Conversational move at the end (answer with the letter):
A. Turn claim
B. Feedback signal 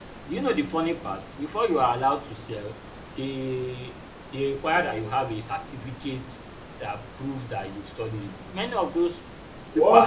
A